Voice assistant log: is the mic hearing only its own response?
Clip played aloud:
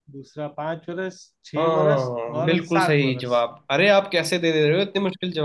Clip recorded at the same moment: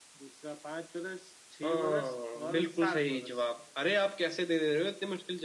Yes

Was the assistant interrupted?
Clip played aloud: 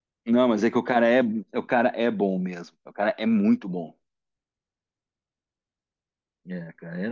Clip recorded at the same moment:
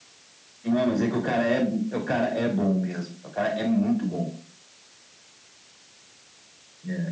No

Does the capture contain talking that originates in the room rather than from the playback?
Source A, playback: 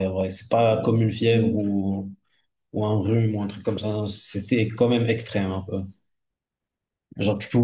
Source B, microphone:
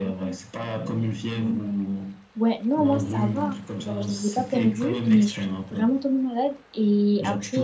Yes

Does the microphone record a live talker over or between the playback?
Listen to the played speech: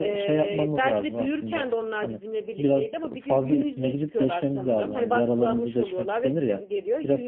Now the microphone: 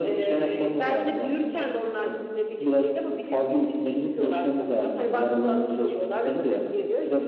No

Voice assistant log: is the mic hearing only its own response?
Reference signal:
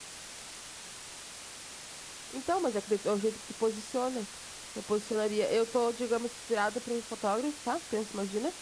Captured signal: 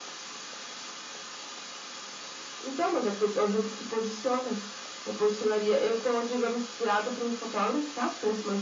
Yes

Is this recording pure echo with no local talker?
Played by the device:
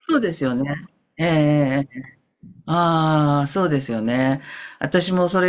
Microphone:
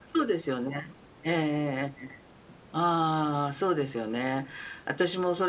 Yes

